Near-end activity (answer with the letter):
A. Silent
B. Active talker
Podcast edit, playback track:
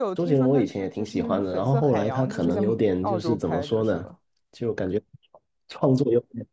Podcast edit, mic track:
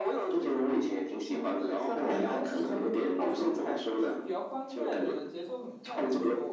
B